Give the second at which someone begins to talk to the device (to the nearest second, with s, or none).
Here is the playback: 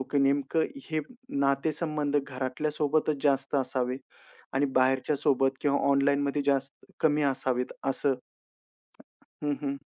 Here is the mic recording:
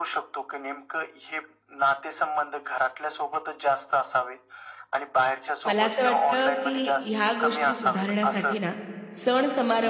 6 s